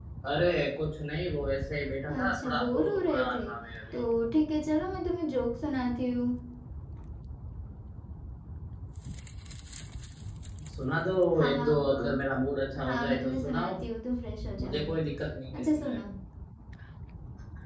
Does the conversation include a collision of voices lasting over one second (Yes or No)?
Yes